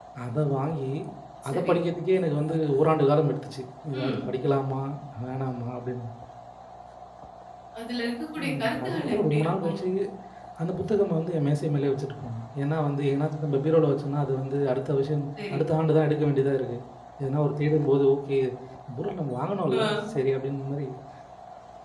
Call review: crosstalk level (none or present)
present